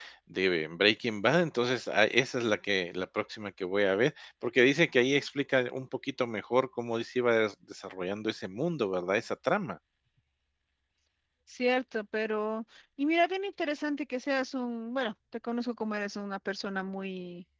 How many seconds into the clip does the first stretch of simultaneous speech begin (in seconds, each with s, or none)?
none